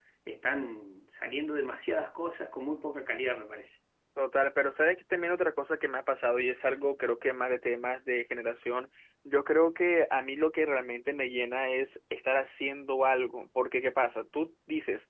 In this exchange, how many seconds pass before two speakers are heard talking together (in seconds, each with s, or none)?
none